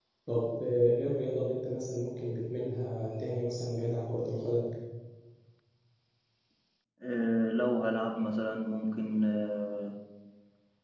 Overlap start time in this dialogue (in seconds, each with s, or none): none